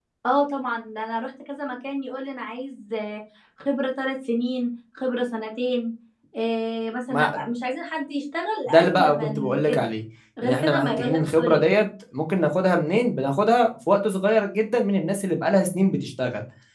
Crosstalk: present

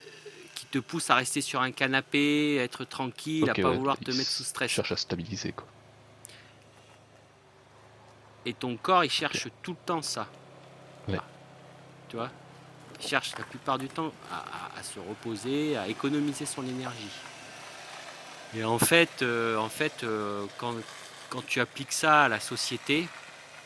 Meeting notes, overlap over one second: present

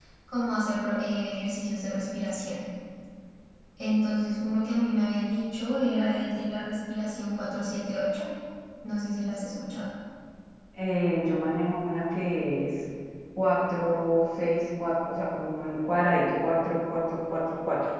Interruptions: none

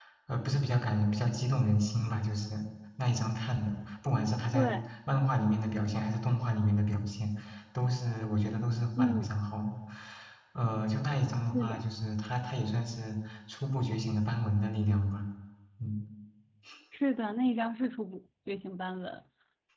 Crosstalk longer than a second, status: none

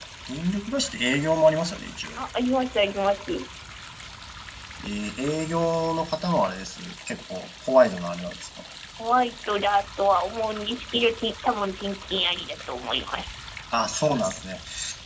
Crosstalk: none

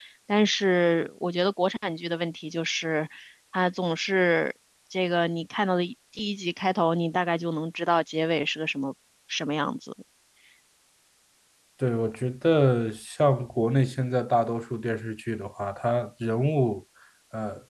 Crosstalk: none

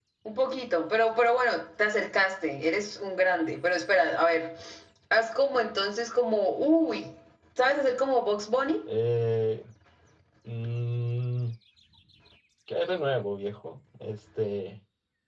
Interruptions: none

